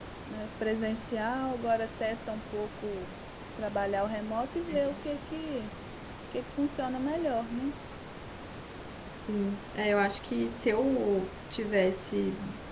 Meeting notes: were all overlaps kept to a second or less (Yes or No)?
Yes